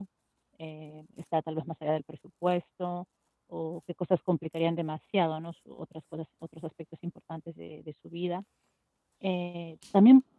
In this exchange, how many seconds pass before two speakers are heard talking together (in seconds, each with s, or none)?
none